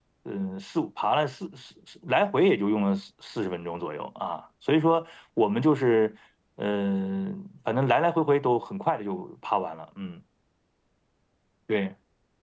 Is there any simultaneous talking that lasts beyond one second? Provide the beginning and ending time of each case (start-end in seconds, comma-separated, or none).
none